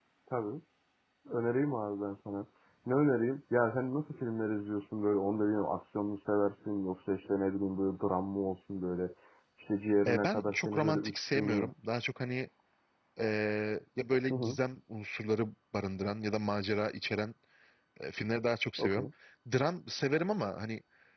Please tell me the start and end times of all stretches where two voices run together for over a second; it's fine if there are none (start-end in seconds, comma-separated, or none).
10.1-11.7